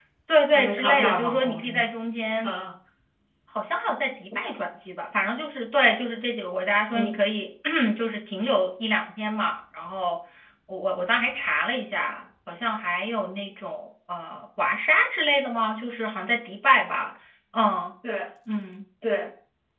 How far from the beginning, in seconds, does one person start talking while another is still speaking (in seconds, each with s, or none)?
0.5 s